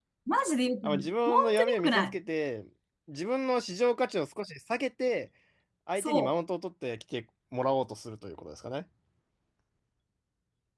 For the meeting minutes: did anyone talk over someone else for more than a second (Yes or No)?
Yes